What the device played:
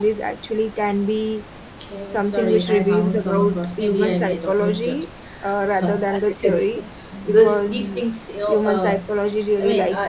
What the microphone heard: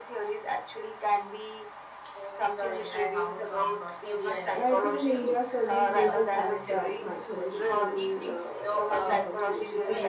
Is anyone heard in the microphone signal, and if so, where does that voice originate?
both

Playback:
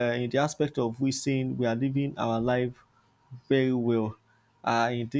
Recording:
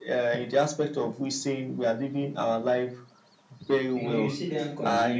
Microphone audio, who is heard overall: both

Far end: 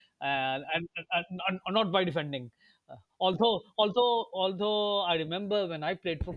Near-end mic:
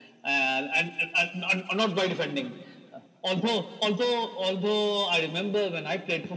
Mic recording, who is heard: echo only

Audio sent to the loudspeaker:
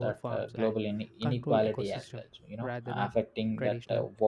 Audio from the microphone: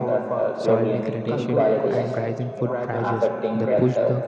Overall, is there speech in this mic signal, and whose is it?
both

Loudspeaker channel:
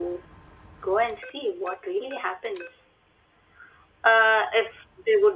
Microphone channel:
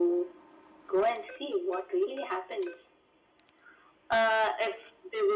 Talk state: echo only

